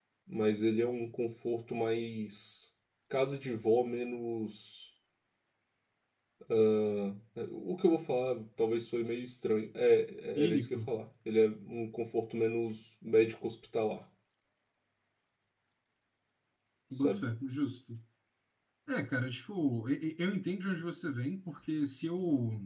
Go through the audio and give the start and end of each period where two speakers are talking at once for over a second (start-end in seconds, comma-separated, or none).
none